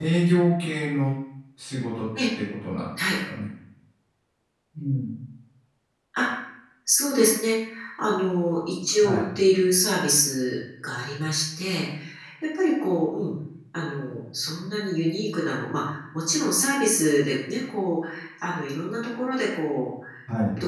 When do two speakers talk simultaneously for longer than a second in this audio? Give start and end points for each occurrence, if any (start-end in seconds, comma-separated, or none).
none